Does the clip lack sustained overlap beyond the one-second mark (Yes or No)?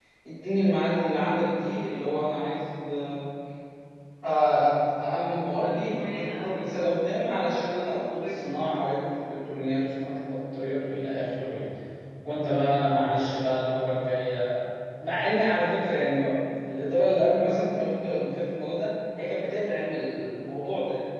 No